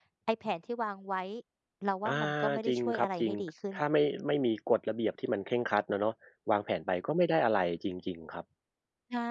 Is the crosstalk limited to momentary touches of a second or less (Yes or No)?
No